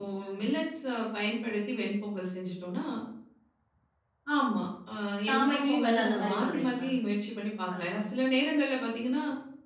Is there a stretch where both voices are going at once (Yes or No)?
Yes